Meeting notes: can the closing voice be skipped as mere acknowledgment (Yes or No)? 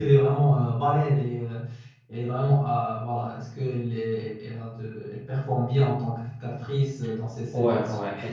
No